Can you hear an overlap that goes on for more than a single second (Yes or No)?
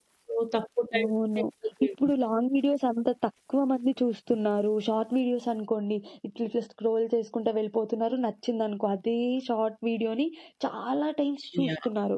No